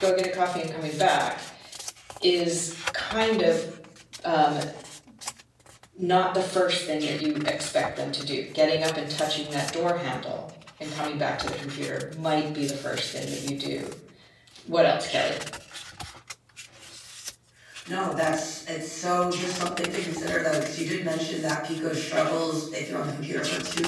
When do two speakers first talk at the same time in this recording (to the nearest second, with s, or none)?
none